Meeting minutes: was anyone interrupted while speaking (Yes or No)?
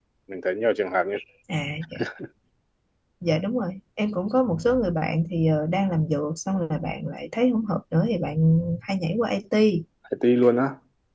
No